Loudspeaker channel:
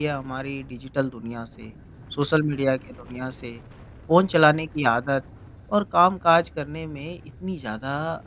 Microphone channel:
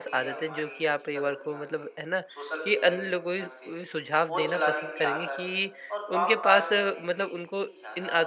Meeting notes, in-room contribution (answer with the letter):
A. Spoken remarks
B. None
A